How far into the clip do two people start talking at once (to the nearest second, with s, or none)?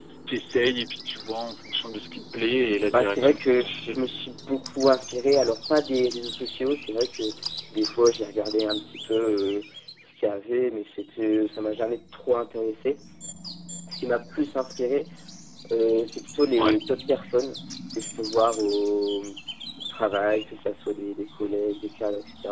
3 s